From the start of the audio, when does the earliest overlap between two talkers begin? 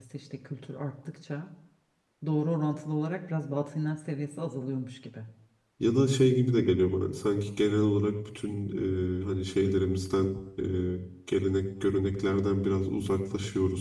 none

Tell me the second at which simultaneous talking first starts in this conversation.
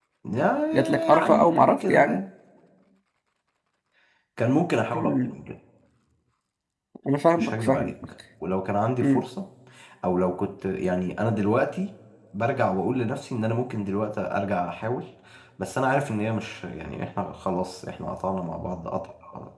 1 s

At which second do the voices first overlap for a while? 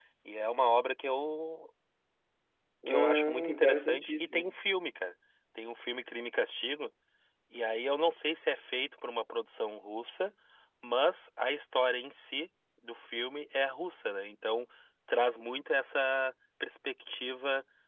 3 s

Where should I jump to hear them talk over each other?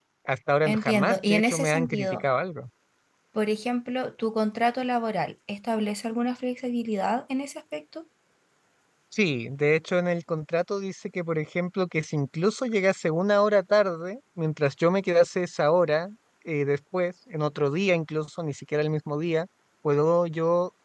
1 s

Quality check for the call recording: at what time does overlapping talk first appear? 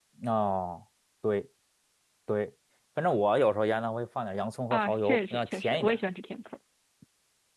5 s

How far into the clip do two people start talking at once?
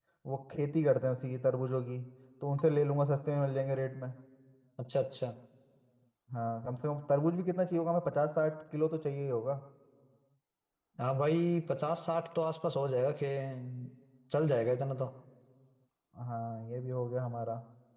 none

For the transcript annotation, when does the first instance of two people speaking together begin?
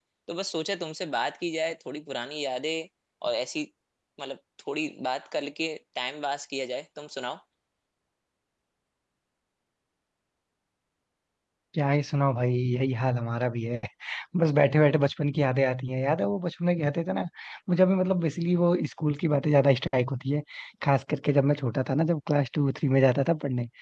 none

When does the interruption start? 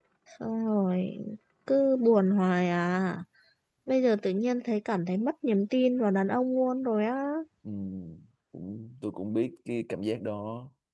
none

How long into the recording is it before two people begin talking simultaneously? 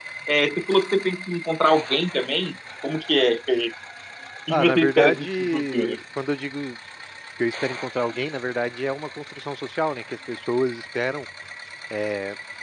4 s

